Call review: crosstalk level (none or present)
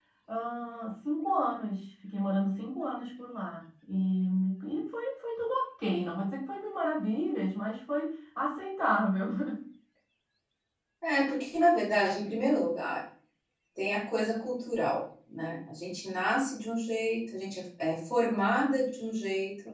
none